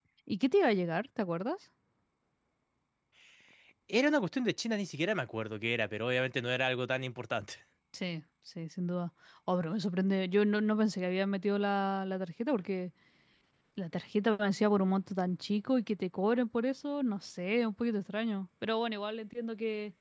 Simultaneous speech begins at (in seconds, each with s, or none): none